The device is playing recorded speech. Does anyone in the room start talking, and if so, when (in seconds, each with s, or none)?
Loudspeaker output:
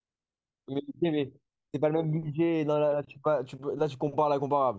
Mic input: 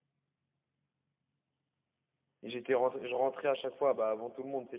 2.4 s